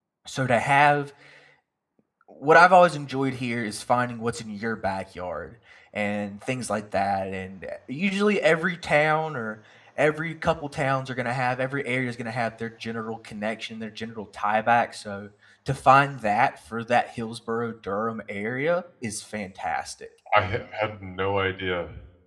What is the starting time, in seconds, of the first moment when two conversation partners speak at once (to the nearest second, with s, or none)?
none